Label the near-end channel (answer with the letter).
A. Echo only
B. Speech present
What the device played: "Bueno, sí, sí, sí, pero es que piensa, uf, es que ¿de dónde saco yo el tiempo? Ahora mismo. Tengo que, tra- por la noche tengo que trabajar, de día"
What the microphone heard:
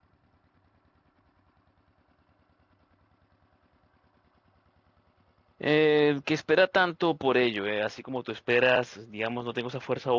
B